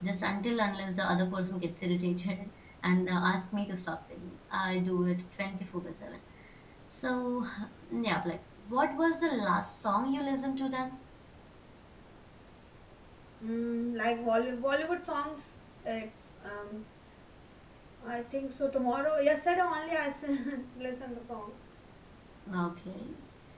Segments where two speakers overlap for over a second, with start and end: none

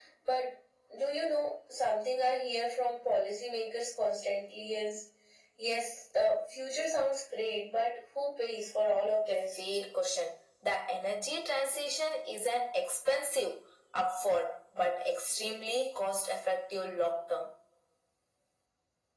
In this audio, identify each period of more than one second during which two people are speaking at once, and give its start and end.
none

